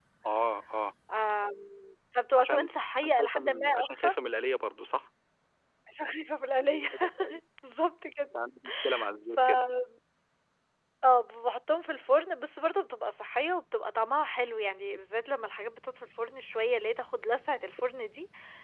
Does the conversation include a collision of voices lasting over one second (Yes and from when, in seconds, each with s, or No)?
Yes, from 2.4 s